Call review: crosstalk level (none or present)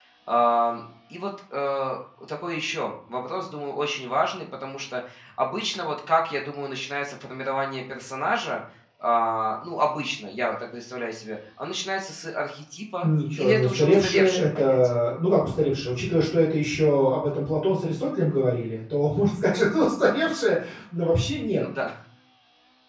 present